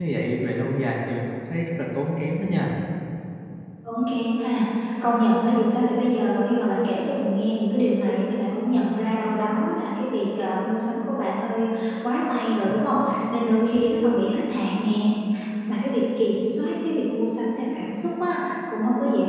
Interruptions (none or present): none